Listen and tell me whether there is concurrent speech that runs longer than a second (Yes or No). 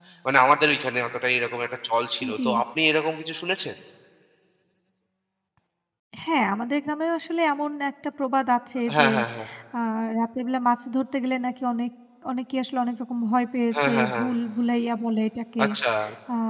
No